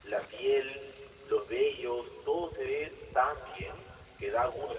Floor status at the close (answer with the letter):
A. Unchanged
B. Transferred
B